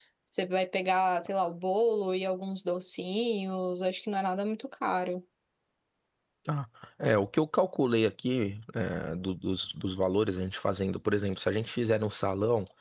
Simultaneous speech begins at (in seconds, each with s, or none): none